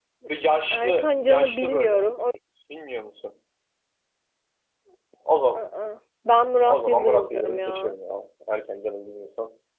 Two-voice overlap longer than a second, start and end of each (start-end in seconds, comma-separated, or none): 0.7-2.0, 6.6-8.0